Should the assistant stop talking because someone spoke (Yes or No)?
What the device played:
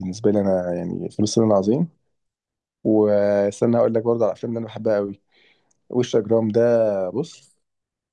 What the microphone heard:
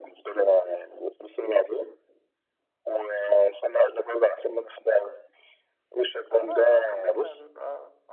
Yes